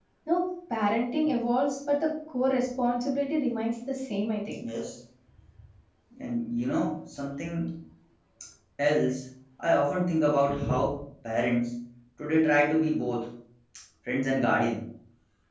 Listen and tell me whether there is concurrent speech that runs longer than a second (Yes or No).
No